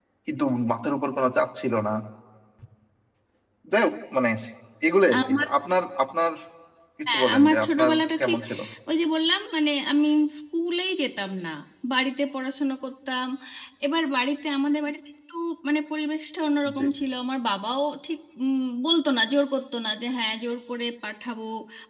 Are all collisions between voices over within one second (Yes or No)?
No